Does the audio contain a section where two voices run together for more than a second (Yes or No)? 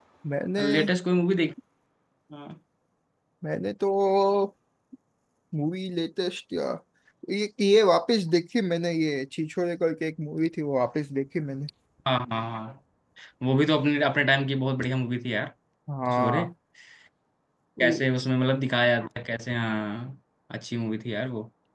No